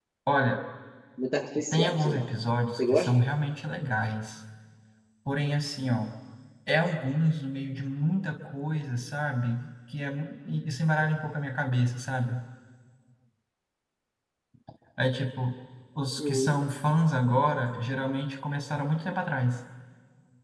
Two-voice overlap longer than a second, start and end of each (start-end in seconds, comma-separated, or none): none